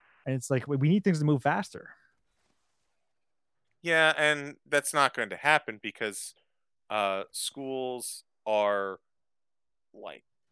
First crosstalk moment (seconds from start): none

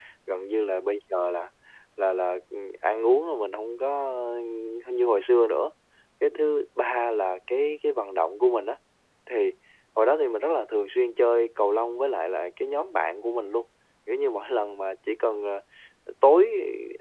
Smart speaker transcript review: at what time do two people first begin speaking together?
none

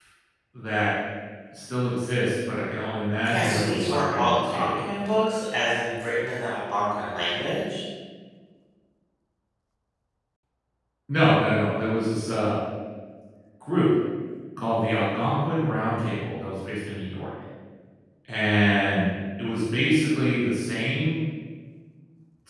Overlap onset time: 3.2 s

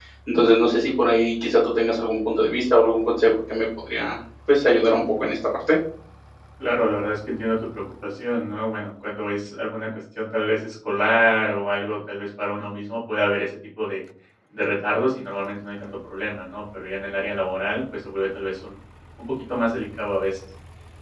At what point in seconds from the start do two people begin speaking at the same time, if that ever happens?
none

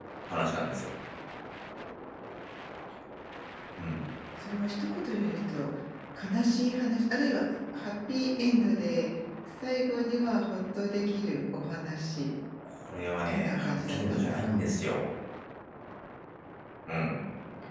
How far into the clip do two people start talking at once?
13.2 s

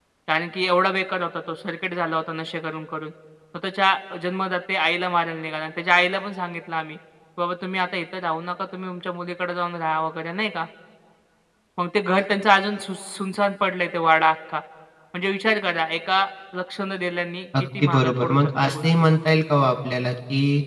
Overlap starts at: 17.8 s

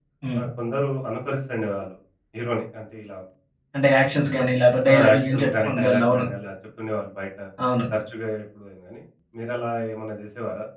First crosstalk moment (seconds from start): 4.9 s

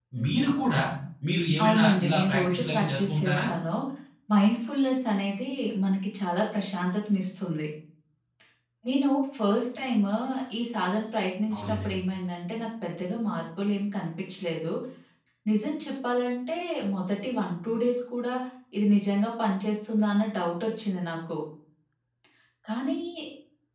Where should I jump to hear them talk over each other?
1.6 s

